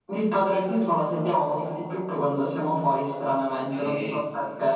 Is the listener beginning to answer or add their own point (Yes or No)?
Yes